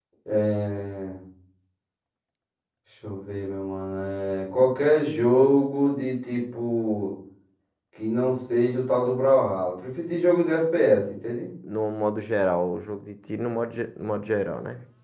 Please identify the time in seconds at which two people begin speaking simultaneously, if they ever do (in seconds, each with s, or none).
none